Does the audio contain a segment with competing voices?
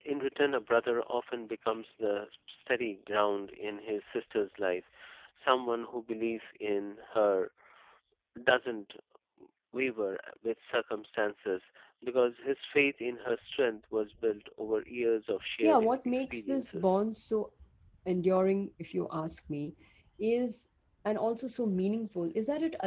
Yes, from 15.6 s

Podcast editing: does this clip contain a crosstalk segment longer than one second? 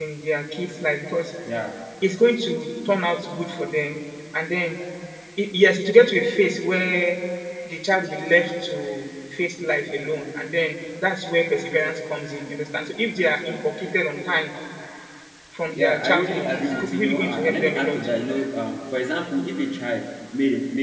Yes, from 15.7 s

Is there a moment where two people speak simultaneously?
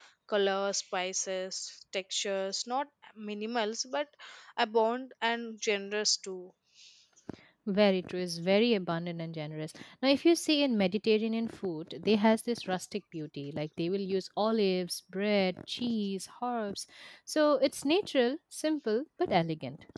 No

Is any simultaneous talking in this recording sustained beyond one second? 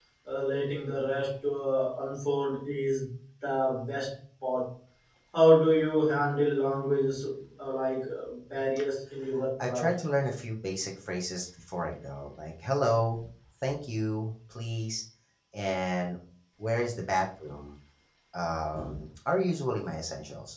No

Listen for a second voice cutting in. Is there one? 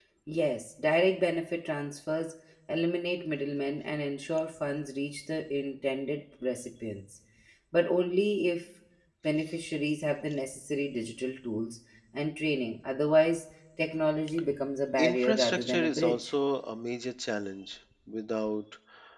Yes, from 15.0 s

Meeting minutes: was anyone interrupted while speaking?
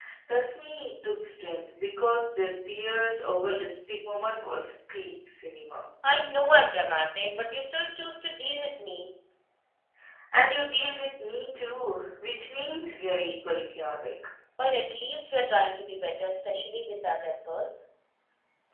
No

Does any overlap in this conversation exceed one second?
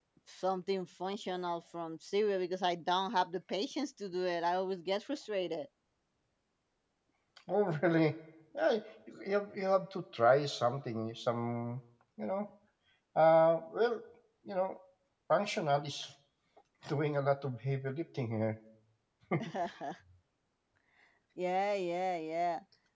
No

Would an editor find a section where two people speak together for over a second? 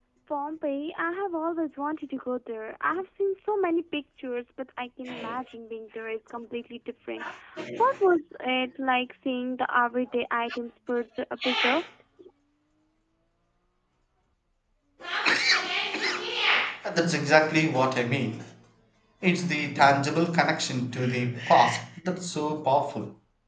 No

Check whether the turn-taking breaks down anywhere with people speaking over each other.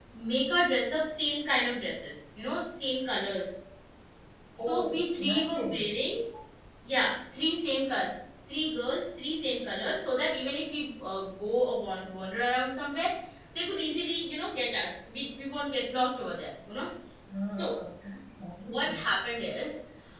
Yes, from 4.6 s

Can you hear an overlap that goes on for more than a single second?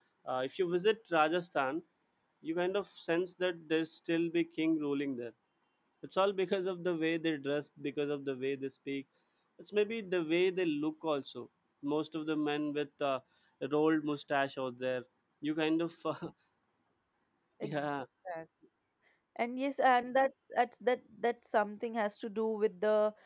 No

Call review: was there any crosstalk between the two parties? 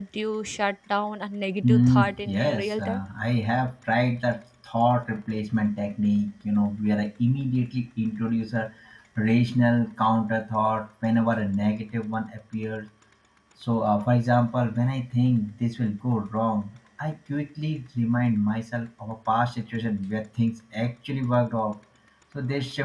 Yes, from 1.6 s

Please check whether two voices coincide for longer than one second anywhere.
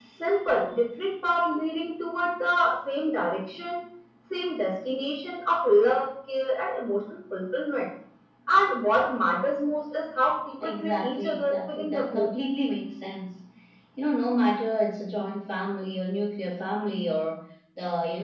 Yes, from 10.6 s

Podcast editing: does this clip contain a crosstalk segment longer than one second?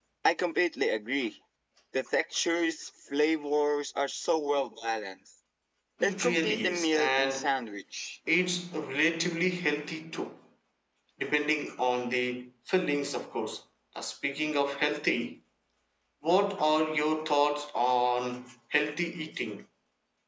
Yes, from 6.0 s

